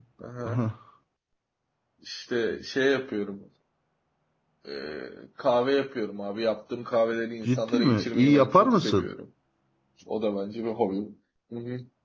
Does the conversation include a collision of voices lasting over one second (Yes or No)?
Yes